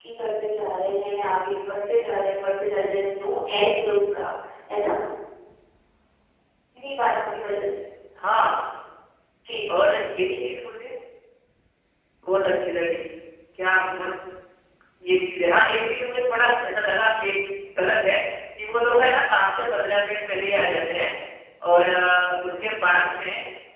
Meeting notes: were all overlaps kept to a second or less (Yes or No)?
Yes